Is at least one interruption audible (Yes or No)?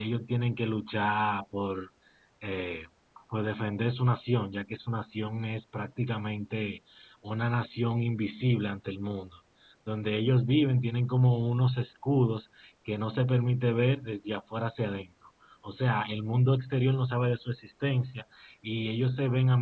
No